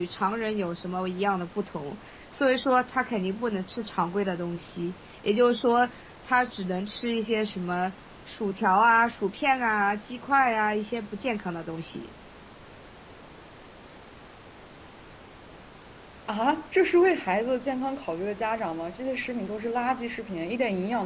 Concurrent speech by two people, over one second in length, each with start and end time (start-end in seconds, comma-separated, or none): none